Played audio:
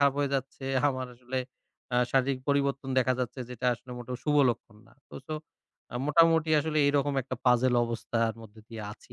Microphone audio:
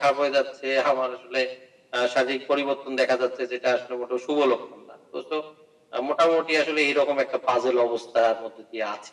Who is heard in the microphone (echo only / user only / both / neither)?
echo only